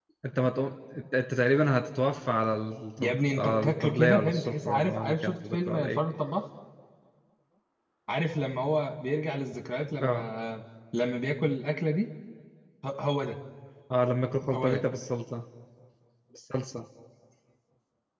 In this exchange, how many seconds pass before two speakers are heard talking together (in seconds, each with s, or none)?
3.0 s